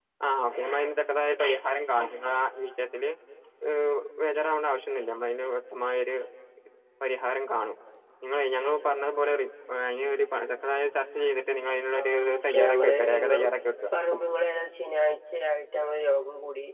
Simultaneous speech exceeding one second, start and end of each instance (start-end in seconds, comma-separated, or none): 12.0-13.5